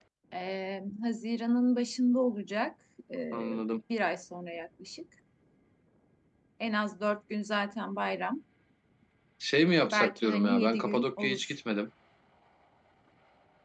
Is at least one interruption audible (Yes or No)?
Yes